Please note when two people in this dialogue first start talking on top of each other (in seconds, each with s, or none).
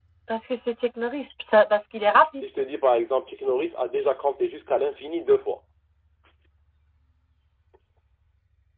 none